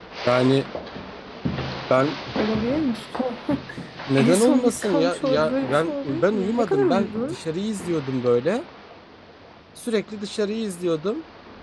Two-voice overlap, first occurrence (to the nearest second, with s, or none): 4 s